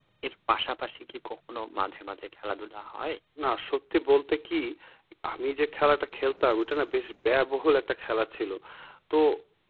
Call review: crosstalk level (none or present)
none